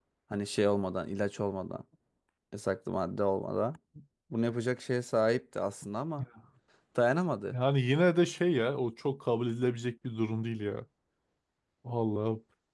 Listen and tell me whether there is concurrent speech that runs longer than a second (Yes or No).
No